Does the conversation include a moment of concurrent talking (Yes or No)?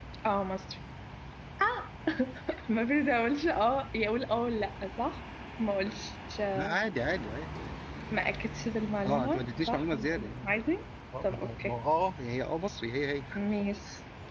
Yes